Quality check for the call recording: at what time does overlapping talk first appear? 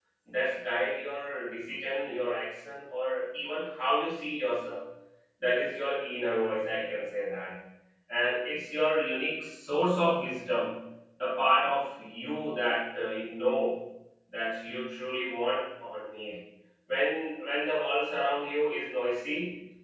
none

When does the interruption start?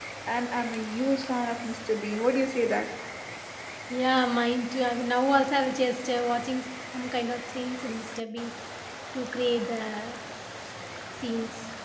none

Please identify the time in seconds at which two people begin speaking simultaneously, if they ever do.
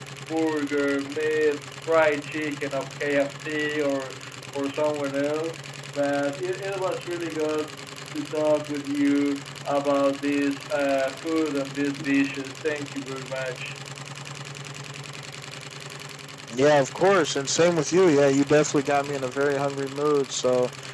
none

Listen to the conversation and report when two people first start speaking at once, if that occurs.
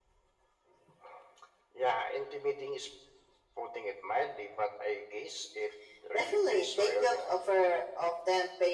6.1 s

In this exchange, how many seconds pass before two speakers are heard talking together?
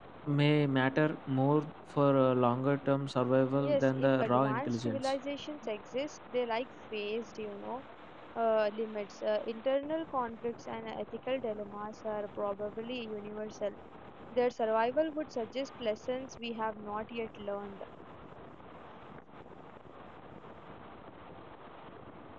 3.6 s

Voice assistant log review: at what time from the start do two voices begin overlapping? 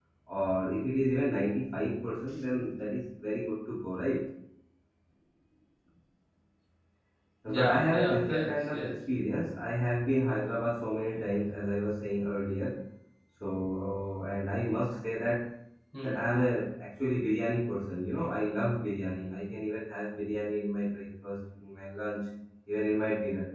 7.5 s

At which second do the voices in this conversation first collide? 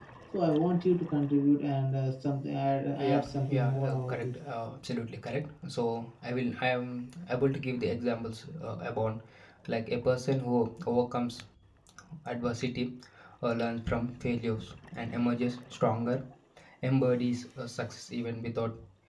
3.0 s

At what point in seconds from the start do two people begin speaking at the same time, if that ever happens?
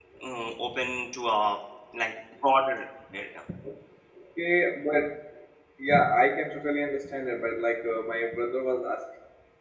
none

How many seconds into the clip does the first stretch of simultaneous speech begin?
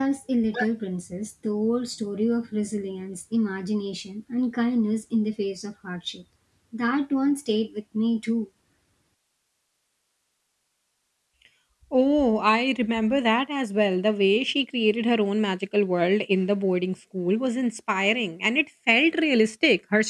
none

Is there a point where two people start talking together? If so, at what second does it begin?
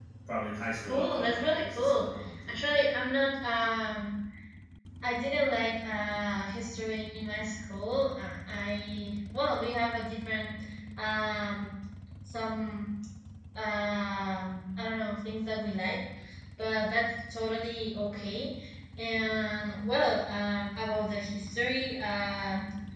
0.8 s

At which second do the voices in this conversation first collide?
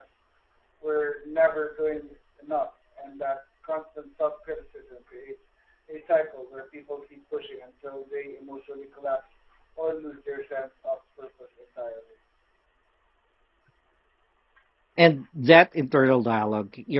none

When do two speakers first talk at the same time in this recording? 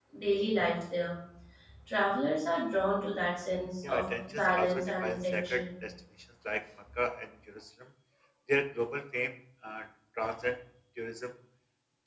3.8 s

